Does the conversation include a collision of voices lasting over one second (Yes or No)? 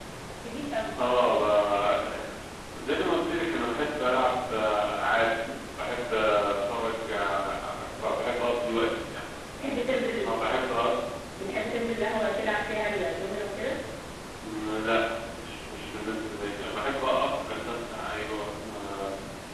No